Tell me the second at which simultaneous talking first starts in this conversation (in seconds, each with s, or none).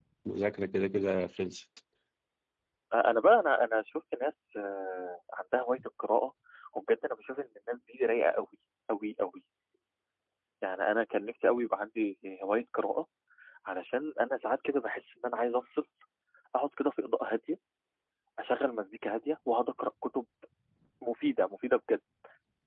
none